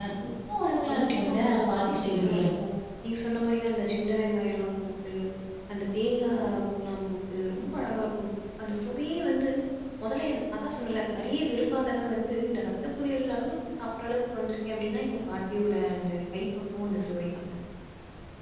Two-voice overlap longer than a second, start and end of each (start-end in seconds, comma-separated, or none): 0.9-2.4